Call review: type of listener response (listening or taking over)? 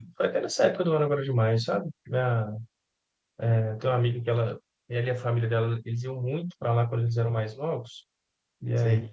listening